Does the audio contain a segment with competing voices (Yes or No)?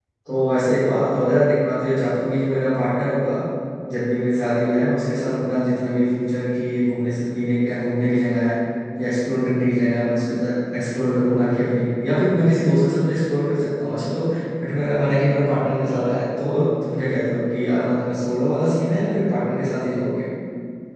No